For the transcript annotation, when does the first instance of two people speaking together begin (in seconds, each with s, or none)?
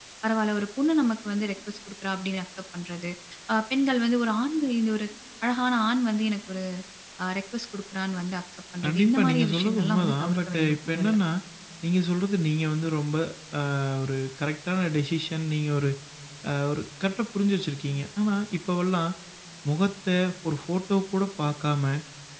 8.8 s